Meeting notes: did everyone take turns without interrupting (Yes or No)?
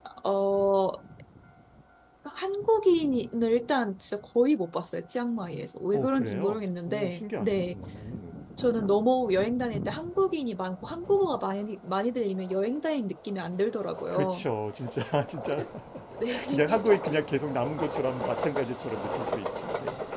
No